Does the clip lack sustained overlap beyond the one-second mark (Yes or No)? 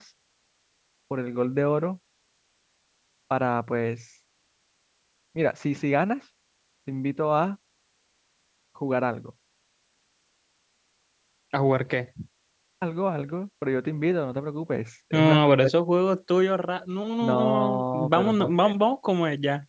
No